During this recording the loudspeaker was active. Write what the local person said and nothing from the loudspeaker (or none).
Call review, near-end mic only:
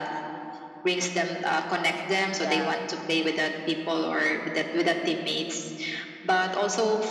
you yeah